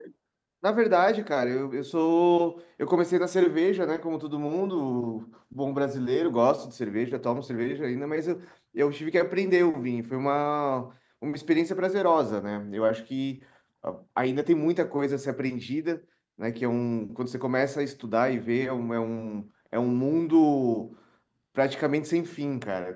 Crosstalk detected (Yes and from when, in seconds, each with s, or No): No